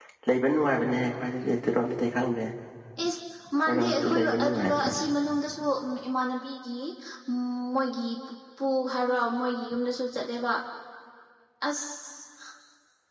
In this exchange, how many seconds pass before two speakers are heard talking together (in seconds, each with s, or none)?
3.7 s